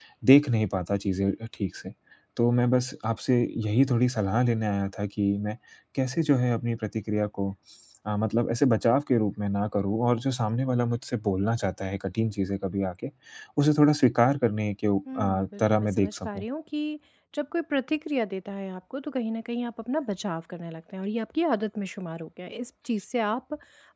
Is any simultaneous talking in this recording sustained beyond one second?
Yes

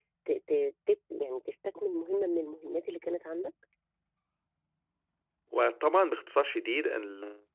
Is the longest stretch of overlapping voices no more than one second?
Yes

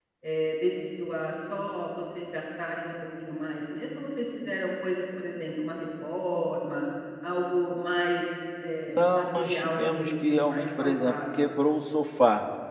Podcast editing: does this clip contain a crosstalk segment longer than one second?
Yes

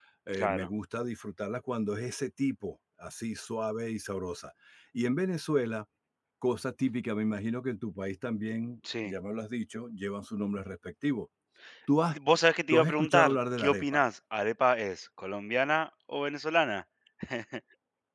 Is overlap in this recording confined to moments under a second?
No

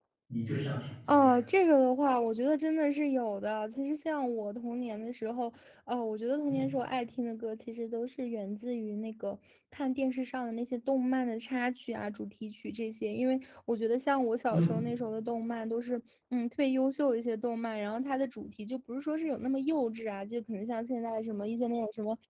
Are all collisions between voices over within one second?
Yes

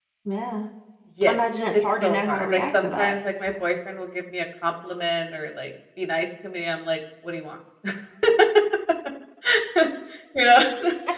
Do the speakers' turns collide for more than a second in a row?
Yes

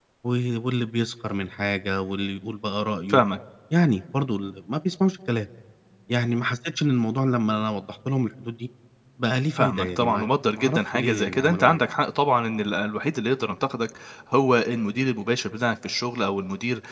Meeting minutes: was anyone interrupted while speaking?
Yes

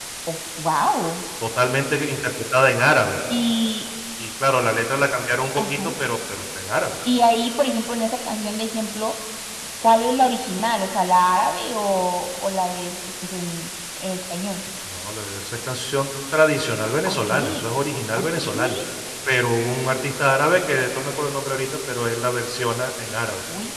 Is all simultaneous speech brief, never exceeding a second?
Yes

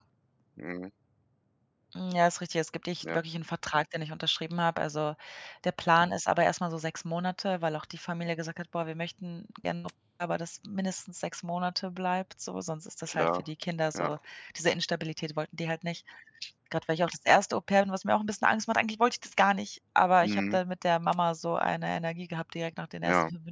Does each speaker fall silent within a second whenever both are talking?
Yes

